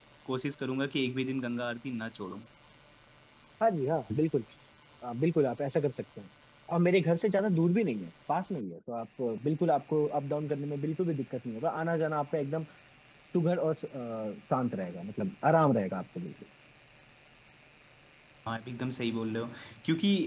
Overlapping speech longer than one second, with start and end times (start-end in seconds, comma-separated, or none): none